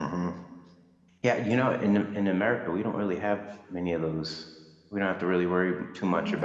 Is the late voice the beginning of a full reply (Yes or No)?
Yes